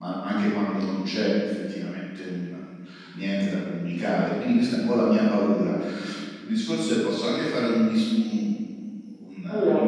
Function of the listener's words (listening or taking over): listening